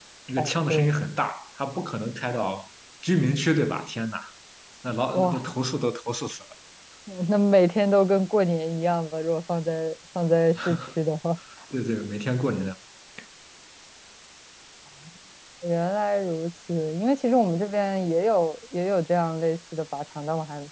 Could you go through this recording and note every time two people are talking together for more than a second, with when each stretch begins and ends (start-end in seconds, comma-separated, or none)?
none